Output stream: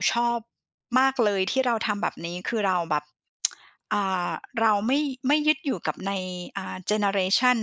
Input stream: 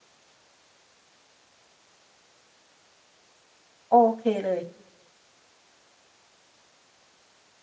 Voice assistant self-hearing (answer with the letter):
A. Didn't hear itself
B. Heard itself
A